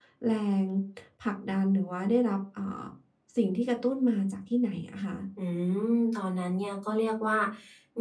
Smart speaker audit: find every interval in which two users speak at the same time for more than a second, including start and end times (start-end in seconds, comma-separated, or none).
none